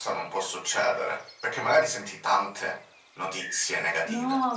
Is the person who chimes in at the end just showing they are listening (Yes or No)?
No